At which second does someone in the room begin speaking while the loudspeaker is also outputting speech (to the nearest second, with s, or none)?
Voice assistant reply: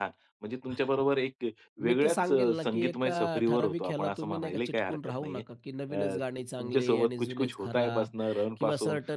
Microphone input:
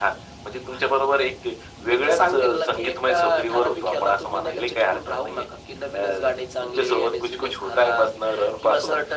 none